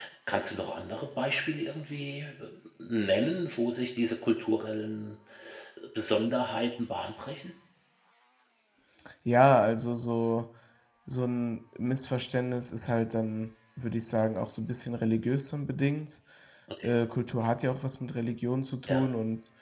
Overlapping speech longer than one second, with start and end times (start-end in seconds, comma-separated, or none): none